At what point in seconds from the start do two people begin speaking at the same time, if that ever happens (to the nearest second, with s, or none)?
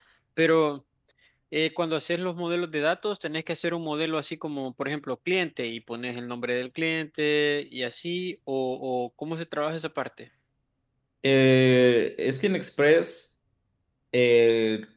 none